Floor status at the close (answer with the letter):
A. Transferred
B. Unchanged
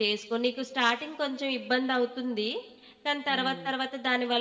B